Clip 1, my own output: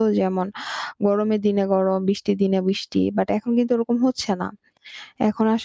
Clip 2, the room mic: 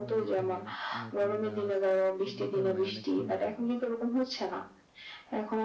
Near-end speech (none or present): present